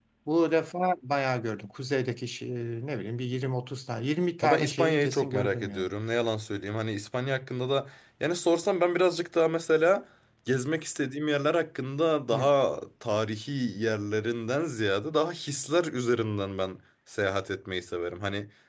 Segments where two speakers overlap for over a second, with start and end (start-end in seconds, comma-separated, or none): 4.4-5.9